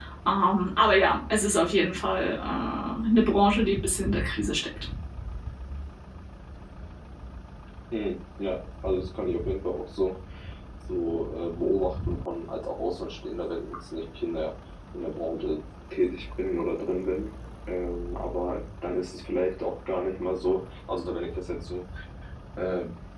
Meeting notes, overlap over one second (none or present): none